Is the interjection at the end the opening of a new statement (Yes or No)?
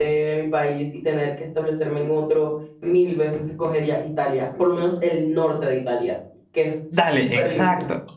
Yes